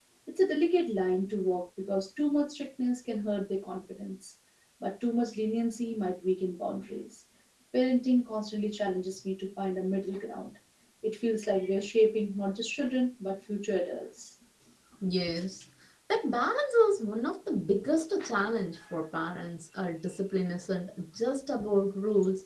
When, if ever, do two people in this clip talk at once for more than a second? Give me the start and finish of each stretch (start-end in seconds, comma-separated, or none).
none